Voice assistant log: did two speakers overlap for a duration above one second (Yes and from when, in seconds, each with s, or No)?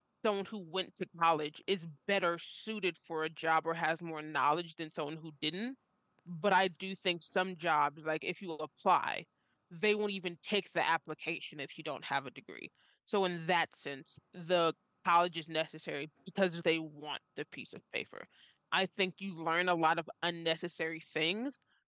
No